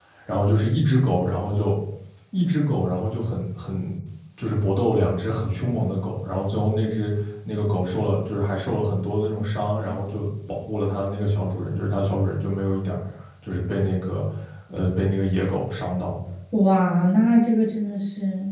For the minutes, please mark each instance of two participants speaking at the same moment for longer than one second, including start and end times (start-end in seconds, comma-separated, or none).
none